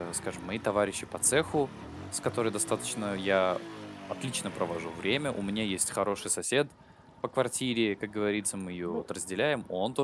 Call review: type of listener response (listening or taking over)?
listening